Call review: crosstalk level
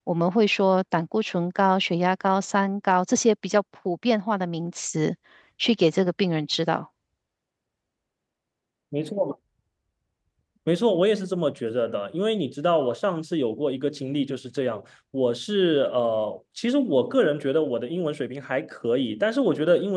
none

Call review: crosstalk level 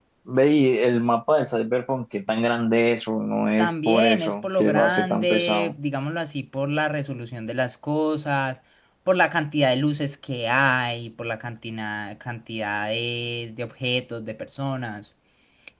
present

